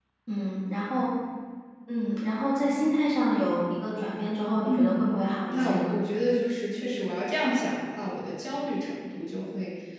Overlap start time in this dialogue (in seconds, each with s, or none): 4.7 s